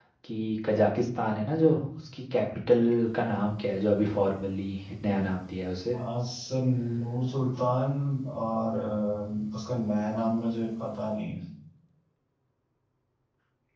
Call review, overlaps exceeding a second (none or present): none